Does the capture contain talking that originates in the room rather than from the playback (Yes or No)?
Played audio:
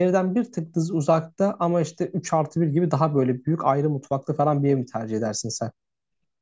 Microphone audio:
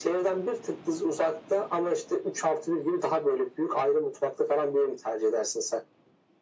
No